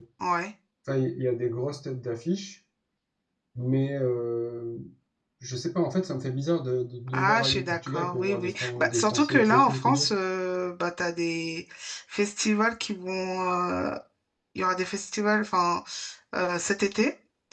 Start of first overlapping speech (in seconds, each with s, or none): 7.1 s